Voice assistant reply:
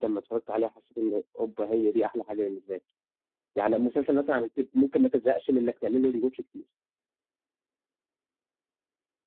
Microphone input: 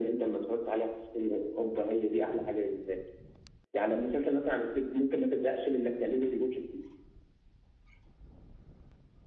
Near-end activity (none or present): none